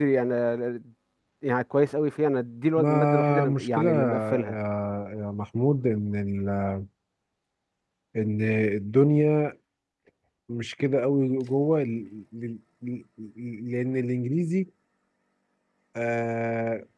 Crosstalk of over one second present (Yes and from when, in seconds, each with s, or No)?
Yes, from 2.8 s